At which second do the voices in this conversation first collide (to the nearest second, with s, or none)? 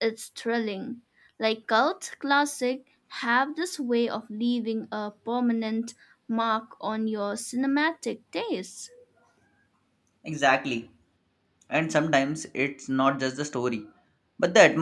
none